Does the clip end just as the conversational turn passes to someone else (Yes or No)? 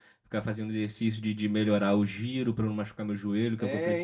Yes